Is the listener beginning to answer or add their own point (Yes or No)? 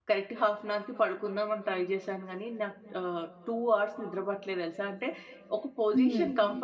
No